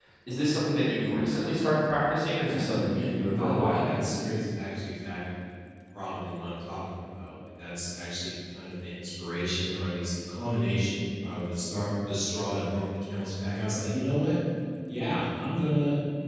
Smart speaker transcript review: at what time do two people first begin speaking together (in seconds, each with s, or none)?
2.4 s